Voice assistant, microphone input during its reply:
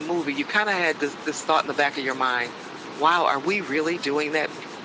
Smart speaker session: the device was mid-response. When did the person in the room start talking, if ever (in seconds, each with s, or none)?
none